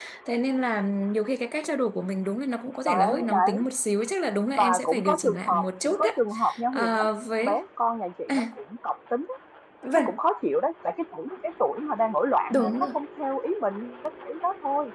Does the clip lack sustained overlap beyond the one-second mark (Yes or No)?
No